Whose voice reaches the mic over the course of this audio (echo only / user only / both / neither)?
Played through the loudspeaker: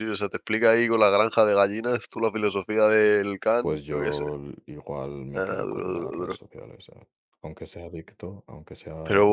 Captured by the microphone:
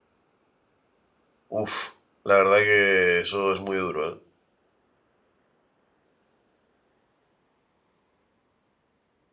user only